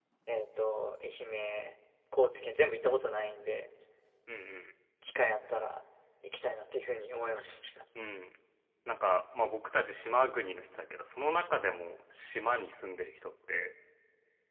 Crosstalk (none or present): none